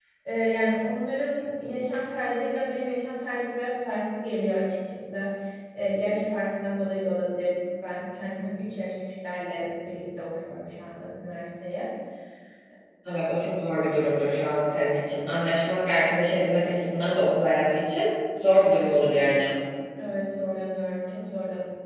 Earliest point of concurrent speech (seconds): none

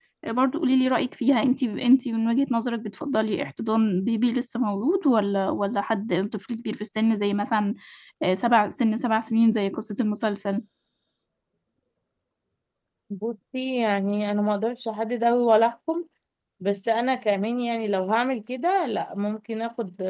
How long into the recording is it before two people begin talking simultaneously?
none

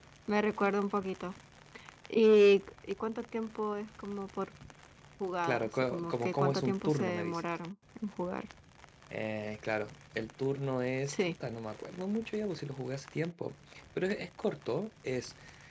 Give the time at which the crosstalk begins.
5.4 s

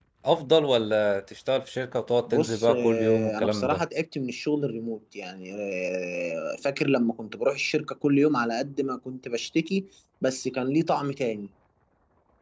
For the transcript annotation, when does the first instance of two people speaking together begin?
2.3 s

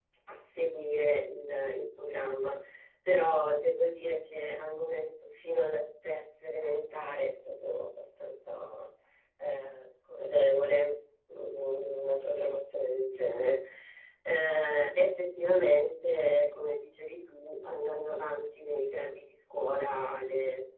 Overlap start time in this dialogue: none

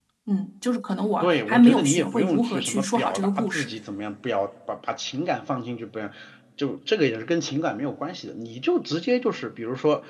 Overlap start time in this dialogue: 1.2 s

